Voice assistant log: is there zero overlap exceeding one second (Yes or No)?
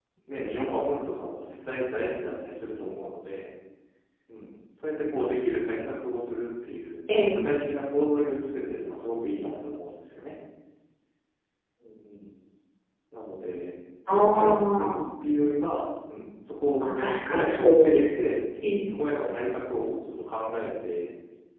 No